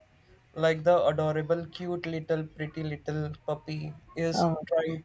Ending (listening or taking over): taking over